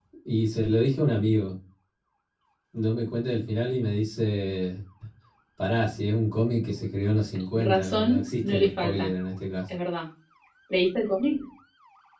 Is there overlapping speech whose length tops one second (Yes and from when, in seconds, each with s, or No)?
Yes, from 7.6 s